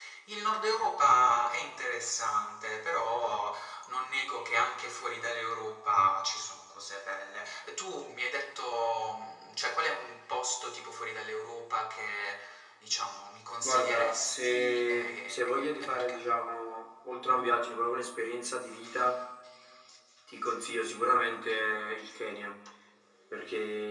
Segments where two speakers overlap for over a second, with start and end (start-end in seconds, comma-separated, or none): 13.6-16.2